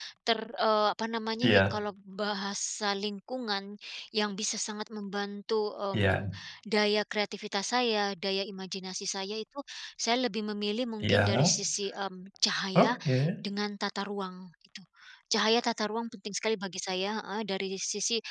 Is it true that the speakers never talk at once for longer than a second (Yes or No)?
Yes